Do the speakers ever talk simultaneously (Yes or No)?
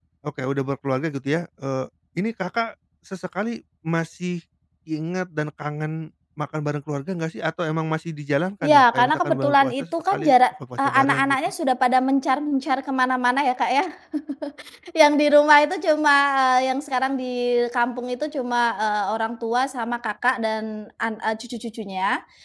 Yes